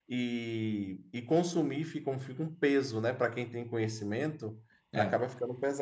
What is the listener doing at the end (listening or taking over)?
listening